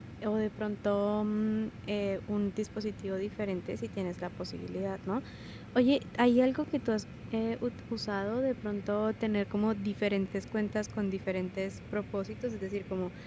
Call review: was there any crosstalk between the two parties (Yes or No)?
No